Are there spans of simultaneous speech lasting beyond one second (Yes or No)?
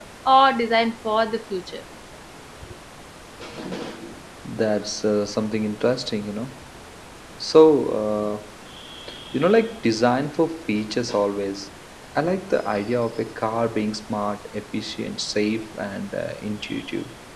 No